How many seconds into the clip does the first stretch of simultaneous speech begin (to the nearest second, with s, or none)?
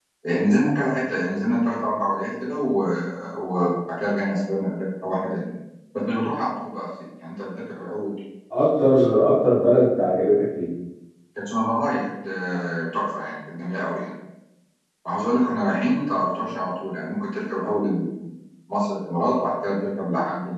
none